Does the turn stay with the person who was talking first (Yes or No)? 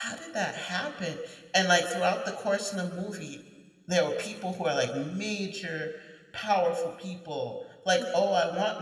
Yes